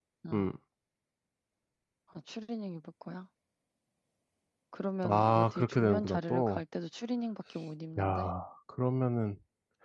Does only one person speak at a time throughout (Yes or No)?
No